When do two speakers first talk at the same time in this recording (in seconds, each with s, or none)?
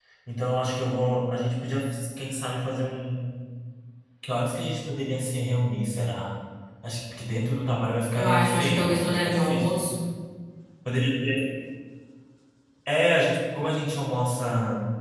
8.2 s